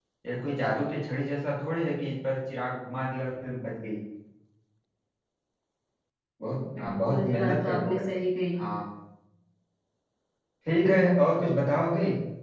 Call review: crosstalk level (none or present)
present